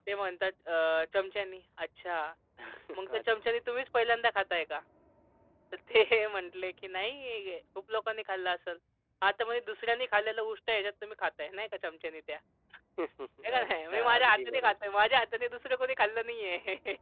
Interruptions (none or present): present